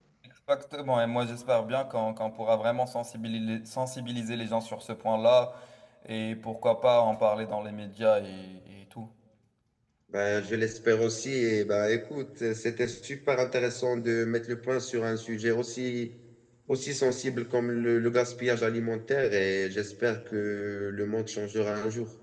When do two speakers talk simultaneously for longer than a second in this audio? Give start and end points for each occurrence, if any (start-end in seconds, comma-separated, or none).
none